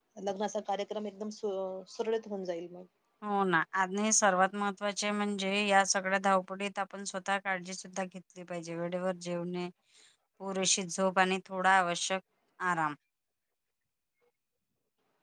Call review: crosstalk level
none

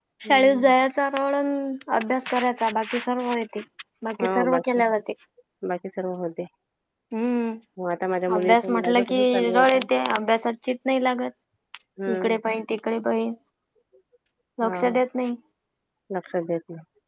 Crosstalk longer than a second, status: present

